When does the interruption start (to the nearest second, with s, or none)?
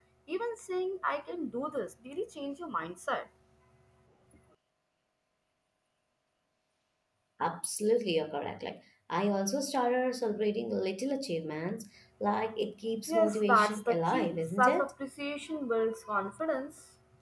13 s